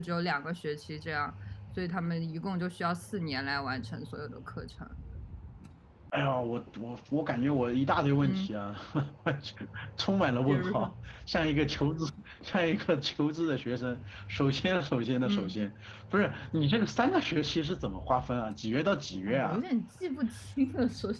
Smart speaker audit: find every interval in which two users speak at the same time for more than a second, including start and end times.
none

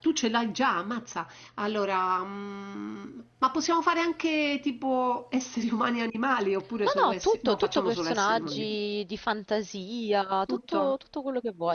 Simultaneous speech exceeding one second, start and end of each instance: 6.8-8.7

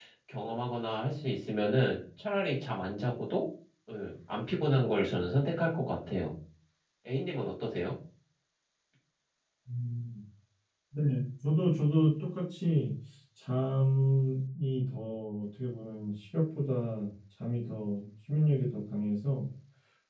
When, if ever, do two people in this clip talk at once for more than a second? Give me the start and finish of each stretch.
none

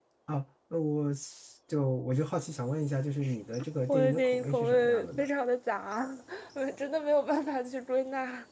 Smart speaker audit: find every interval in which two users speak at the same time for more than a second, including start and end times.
3.9-5.3

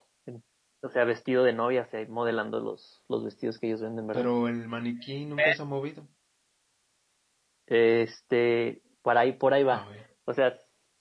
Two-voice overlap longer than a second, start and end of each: none

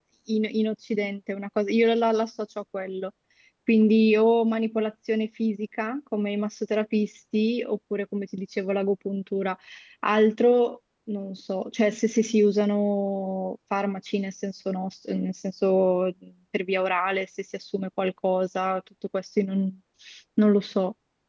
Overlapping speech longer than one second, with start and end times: none

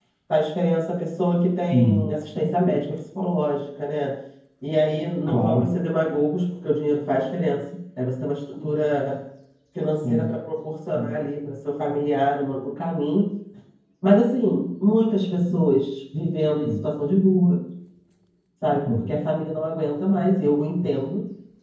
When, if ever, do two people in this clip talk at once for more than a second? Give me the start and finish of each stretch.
none

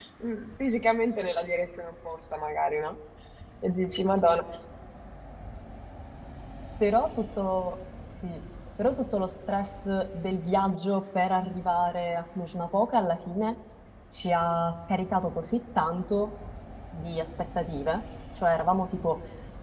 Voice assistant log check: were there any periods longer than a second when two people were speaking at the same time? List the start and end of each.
none

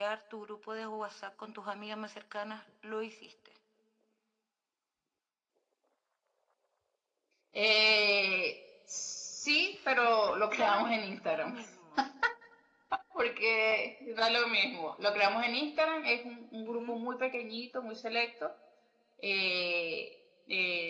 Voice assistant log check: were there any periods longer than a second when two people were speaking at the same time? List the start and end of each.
10.3-11.6

